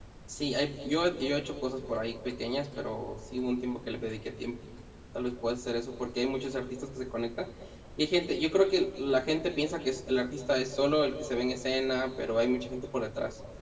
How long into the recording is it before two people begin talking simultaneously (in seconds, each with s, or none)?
none